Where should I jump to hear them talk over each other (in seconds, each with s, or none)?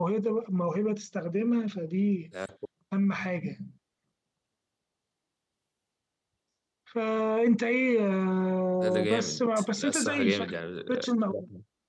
8.8 s